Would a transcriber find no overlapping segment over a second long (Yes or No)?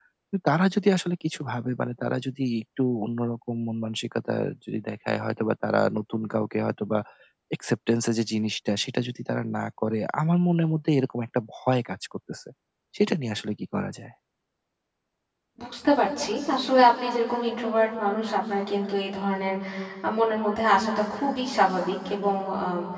Yes